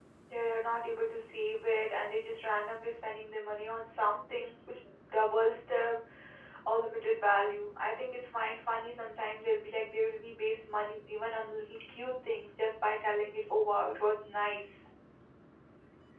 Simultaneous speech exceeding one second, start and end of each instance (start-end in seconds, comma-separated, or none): none